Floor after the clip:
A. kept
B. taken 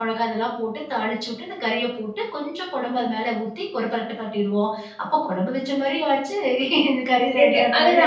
B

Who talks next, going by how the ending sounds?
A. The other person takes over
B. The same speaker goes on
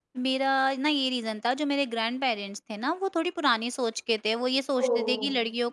B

